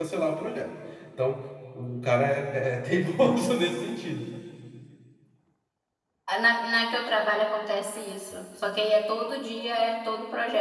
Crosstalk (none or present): none